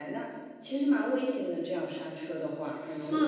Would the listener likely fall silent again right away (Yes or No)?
No